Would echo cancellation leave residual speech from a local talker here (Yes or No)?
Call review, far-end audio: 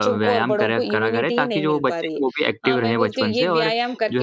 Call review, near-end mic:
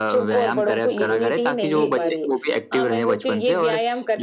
Yes